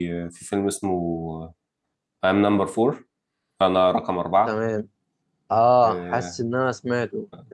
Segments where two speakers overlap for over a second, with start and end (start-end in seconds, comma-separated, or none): none